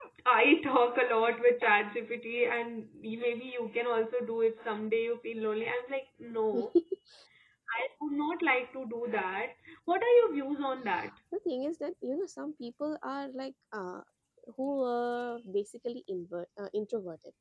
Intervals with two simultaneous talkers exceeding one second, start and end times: none

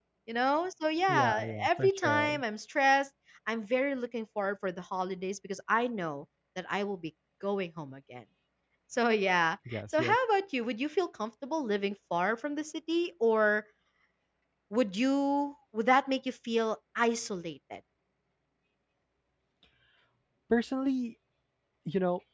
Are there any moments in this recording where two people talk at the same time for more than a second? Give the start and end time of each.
1.1-2.4

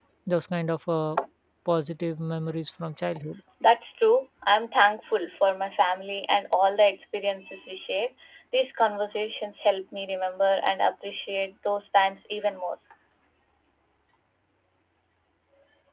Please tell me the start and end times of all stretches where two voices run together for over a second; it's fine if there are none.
none

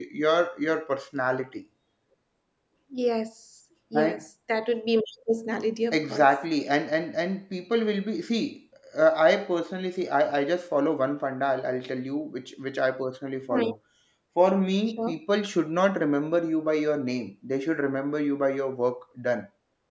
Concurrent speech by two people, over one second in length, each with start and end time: none

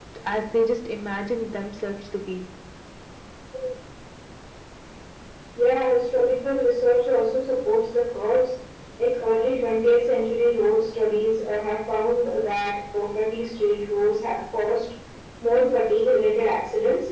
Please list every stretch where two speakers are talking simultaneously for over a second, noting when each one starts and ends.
none

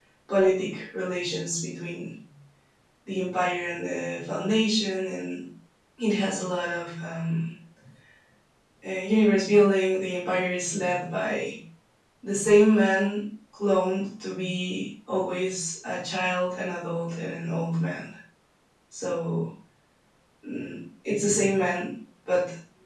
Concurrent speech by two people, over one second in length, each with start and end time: none

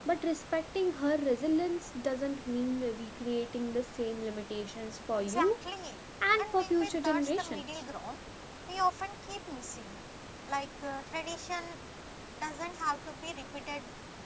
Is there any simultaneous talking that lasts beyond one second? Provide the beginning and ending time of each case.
6.4-7.8

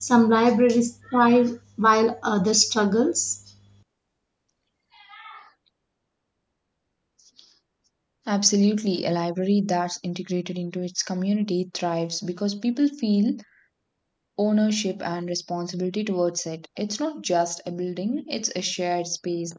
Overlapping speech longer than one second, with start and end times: none

